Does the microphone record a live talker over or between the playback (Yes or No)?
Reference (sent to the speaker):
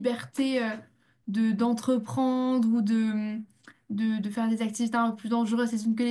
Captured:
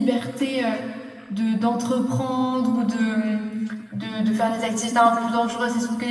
No